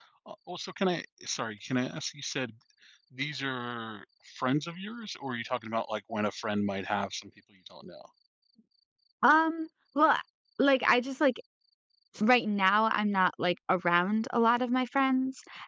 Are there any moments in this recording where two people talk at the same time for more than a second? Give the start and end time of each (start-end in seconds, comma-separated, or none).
none